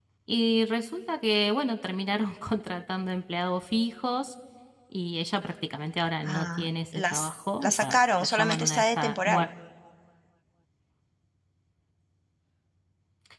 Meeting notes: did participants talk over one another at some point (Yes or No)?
Yes